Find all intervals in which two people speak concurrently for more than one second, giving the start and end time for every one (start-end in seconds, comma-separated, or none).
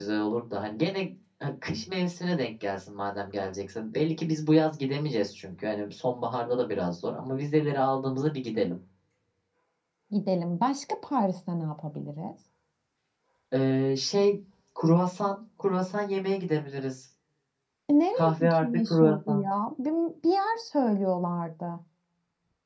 18.1-19.4